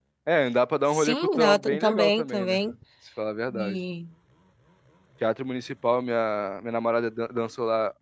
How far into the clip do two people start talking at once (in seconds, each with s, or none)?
0.9 s